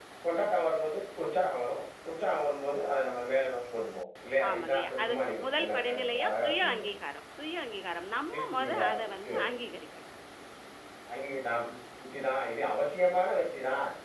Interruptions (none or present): present